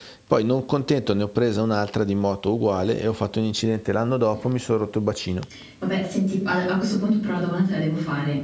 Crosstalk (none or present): none